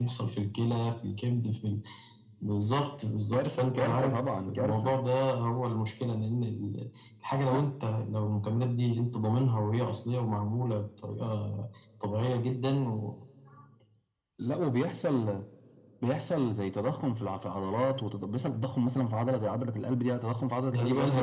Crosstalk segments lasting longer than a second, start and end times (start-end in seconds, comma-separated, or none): 3.3-5.0